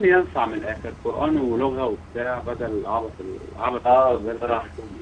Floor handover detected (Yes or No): Yes